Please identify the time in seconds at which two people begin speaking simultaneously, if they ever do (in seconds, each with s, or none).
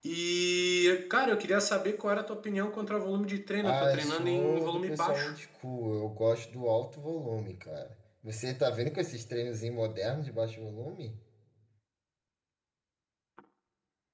3.6 s